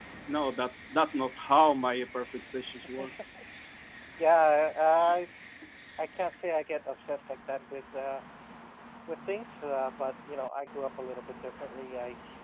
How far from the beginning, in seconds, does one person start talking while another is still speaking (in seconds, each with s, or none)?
none